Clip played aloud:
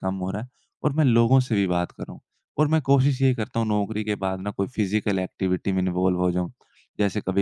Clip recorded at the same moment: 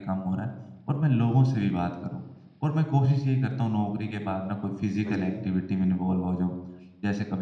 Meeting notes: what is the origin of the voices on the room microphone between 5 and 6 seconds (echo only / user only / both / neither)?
both